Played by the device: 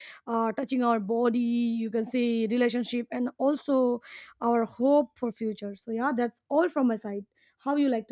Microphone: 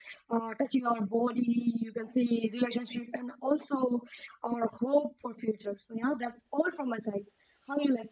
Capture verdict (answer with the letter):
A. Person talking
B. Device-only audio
B